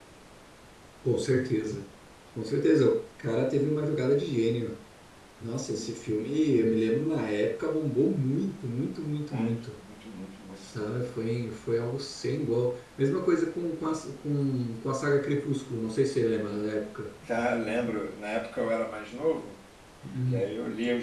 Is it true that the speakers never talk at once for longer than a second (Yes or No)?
Yes